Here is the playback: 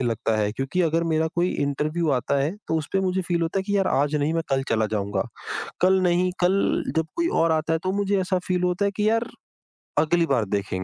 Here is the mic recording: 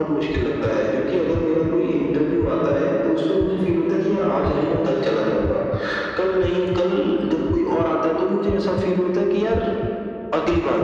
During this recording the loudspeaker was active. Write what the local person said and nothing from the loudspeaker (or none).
none